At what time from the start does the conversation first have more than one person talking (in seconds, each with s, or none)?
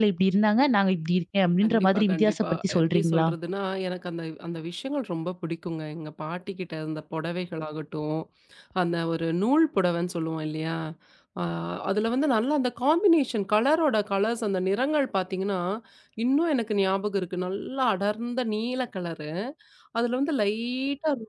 1.6 s